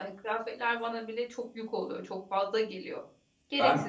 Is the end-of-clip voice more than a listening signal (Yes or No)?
Yes